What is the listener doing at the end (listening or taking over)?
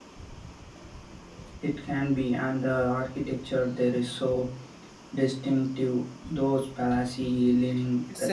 taking over